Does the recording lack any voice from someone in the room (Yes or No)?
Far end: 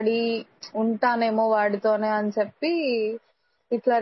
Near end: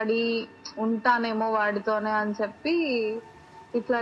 Yes